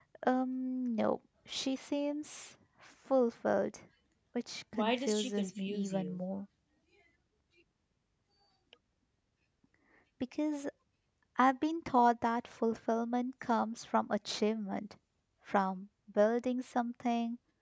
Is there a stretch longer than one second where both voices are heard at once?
Yes, from 4.7 s

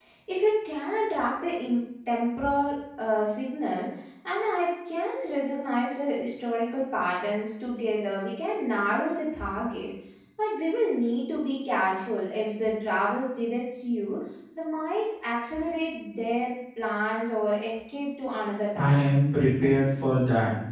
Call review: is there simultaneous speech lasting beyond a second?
No

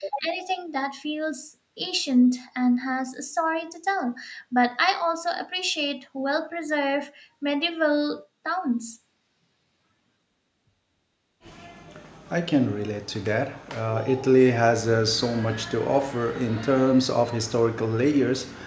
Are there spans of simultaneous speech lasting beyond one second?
No

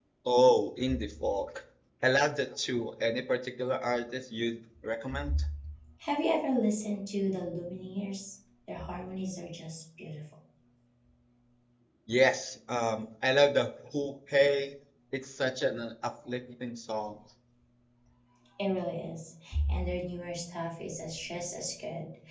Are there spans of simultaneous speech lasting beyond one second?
No

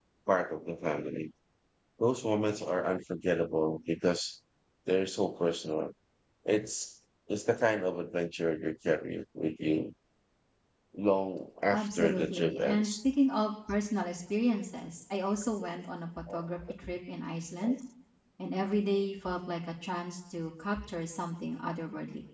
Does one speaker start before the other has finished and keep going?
Yes, from 11.7 s

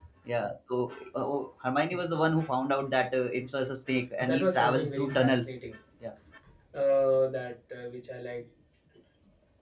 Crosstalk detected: Yes, from 4.3 s

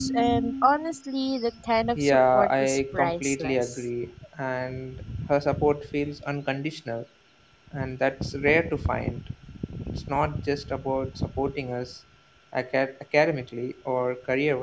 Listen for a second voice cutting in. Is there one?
Yes, from 2.0 s

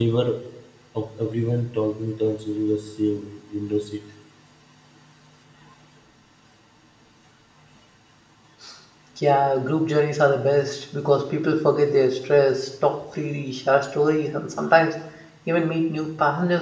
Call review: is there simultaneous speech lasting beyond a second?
No

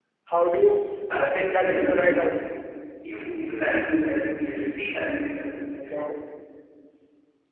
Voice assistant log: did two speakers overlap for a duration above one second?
Yes, from 1.1 s

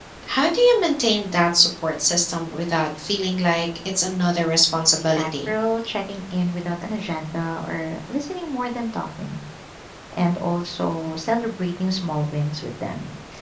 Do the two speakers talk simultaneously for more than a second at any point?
No

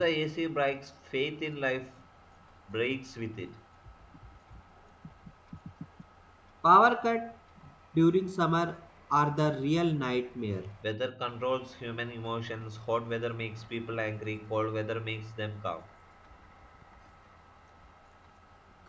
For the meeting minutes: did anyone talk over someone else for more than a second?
No

